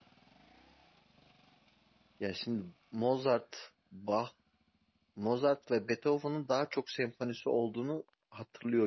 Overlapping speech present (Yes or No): No